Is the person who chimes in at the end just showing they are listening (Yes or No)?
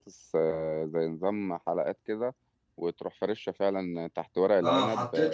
No